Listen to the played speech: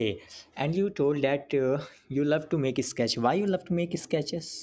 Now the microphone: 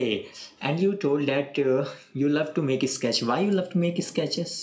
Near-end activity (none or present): none